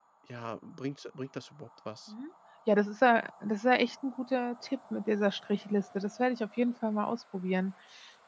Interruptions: none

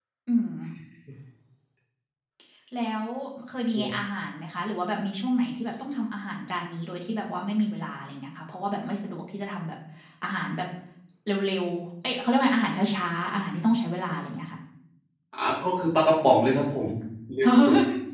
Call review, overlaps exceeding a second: none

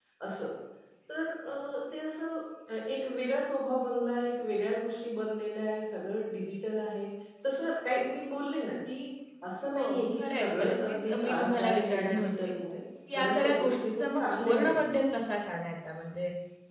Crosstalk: present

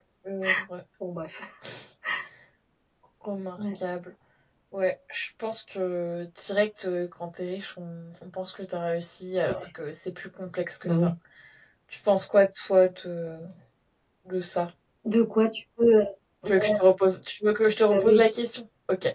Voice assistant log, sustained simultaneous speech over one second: none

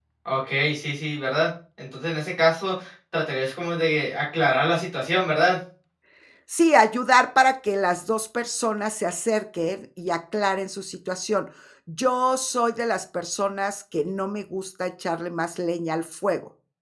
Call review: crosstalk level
none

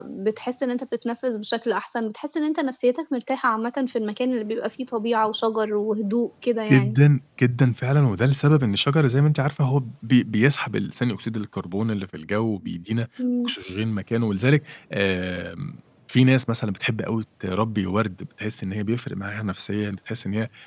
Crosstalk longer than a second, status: none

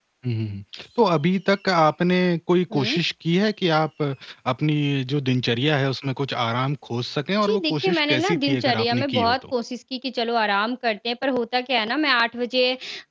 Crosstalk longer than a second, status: present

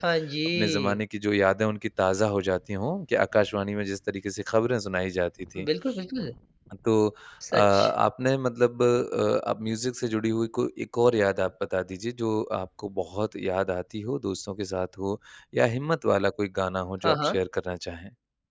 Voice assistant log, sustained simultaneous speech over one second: none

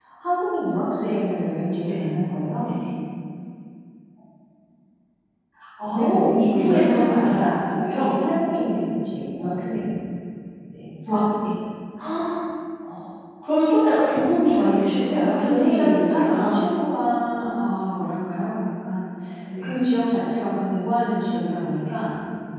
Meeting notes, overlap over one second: present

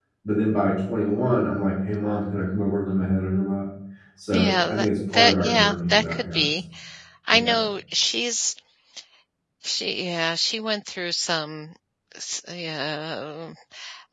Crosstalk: present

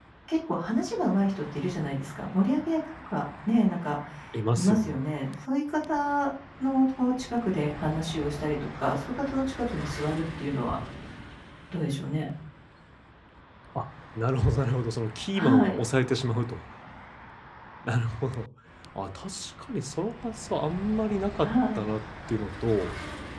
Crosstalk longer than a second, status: none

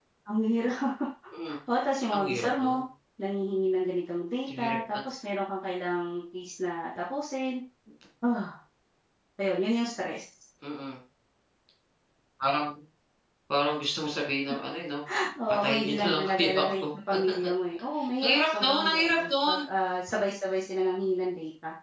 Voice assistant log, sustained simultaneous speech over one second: present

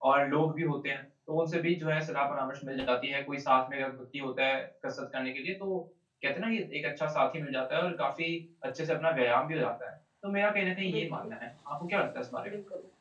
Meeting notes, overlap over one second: none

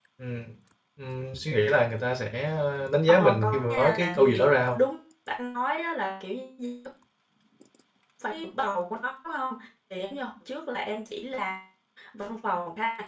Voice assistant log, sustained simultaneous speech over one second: present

